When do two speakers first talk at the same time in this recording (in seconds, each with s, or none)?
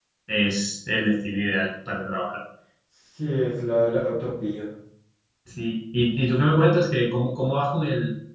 none